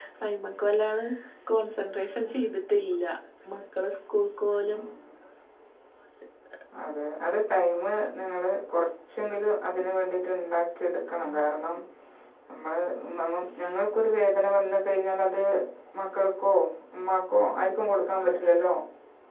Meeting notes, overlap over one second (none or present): none